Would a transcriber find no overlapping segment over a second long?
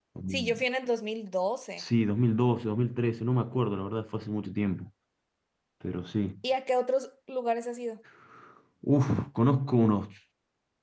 Yes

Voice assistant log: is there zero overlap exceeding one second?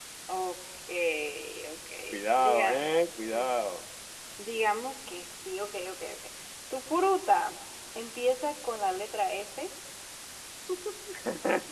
Yes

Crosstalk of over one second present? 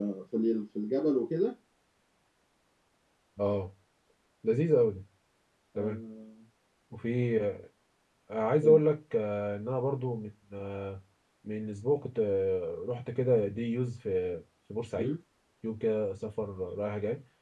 No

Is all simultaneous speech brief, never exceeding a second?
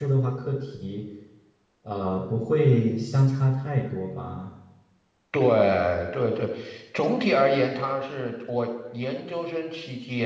Yes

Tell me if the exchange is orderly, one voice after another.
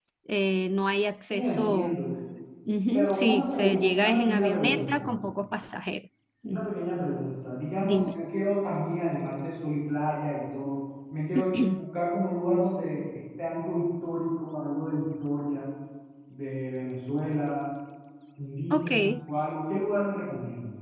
No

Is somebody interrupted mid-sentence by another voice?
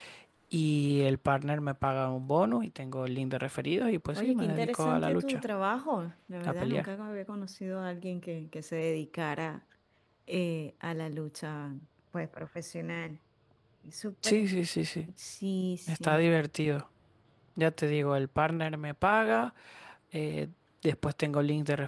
Yes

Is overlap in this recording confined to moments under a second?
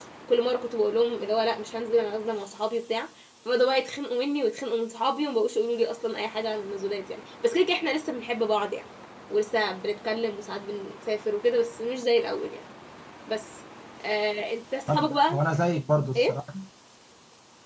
Yes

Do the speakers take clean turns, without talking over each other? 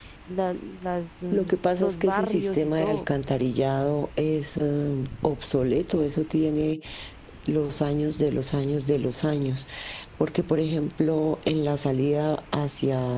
No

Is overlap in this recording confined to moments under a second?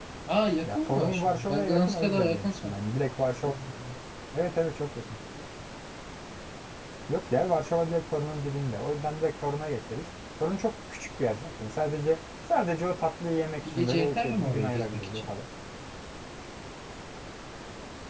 No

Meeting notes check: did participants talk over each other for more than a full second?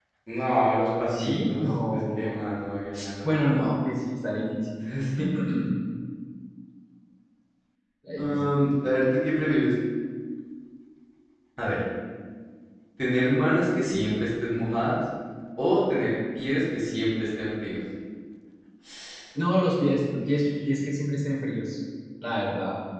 Yes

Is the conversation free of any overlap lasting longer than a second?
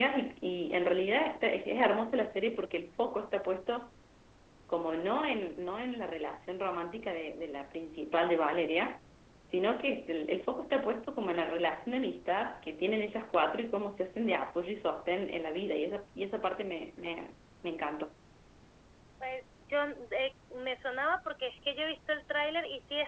Yes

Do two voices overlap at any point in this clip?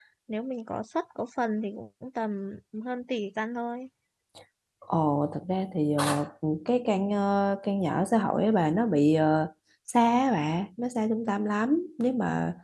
No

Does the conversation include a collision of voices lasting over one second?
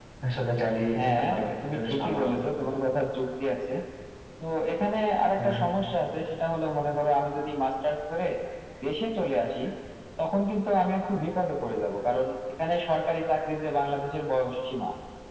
Yes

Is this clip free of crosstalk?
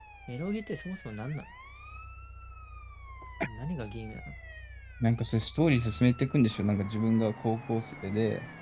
Yes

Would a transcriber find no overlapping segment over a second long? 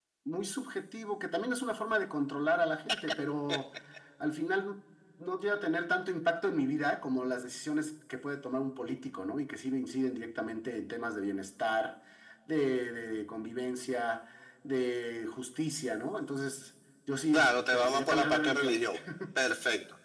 No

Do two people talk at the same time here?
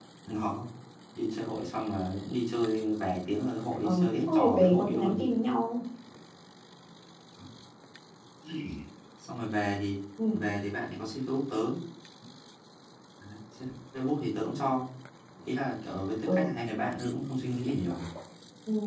Yes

